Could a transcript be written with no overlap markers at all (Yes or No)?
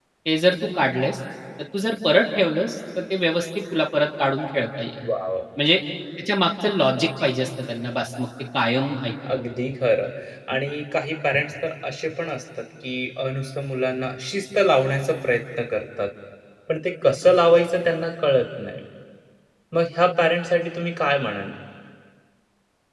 Yes